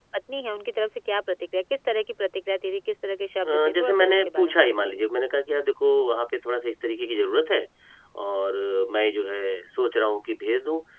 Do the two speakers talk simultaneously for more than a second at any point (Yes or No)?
Yes